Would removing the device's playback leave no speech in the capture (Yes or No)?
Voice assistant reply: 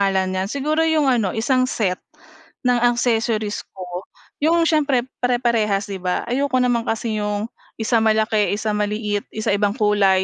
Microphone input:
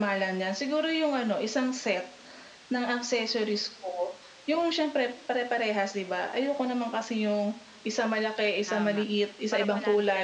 No